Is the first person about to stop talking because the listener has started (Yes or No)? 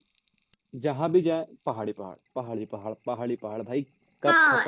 Yes